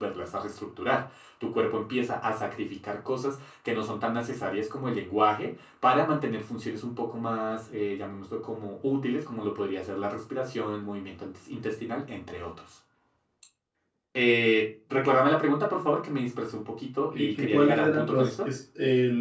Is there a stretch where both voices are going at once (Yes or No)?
Yes